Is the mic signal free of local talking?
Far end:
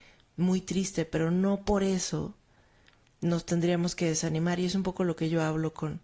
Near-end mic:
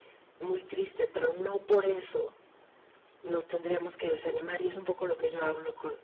Yes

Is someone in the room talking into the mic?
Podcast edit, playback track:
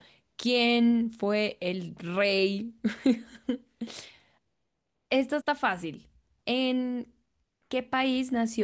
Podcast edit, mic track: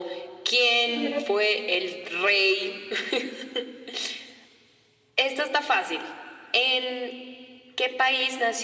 Yes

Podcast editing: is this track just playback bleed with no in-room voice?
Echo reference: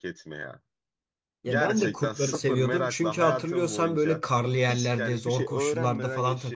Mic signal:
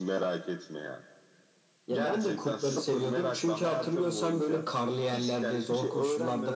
Yes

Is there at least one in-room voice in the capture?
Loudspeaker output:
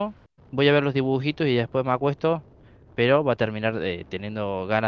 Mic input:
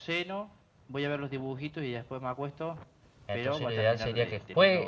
Yes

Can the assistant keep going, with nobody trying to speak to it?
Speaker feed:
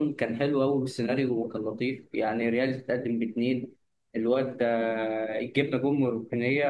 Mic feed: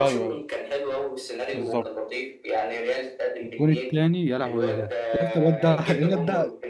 No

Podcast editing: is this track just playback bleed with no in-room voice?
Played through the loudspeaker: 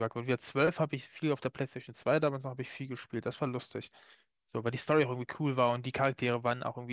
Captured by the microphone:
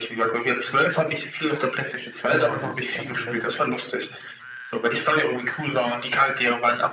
No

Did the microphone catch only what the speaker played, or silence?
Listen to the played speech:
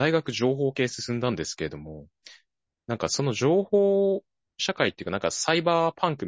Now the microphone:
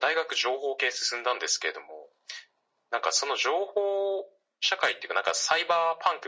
Yes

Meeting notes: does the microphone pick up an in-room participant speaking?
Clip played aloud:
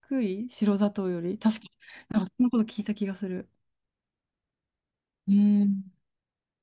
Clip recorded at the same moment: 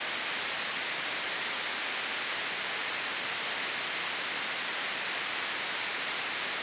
No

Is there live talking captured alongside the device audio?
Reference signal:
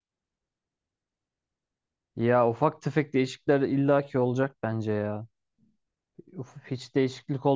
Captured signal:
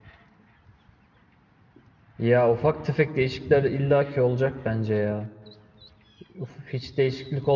No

